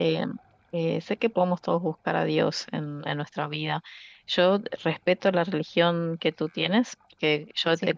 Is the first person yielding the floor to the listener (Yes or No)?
No